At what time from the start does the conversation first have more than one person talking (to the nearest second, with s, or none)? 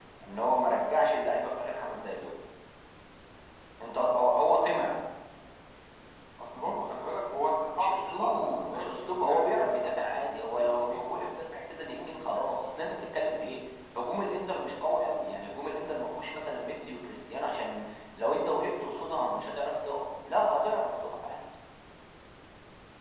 8 s